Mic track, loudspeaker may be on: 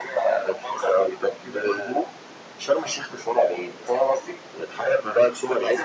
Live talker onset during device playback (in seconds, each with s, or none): none